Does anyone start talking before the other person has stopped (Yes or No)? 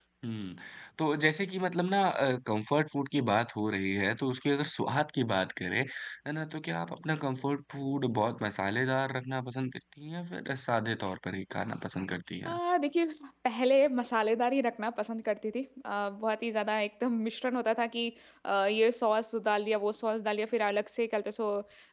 No